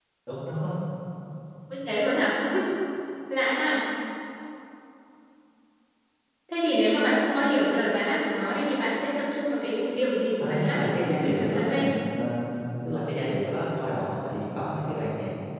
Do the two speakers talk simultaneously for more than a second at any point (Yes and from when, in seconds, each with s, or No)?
Yes, from 10.4 s